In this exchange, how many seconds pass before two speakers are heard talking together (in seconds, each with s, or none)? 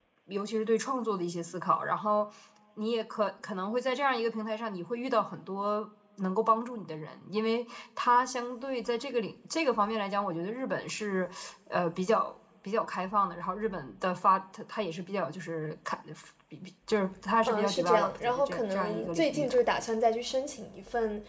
17.4 s